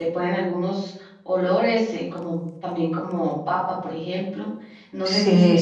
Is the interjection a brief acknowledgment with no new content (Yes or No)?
No